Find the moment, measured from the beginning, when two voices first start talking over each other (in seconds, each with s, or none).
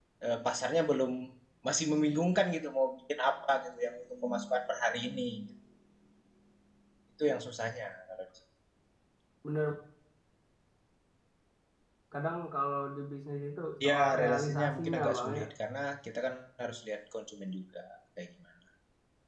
13.8 s